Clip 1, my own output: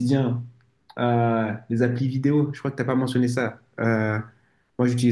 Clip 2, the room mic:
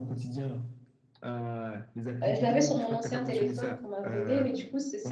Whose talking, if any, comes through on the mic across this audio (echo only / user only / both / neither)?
both